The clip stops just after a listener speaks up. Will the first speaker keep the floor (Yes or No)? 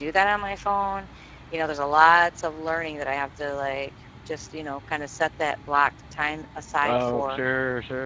No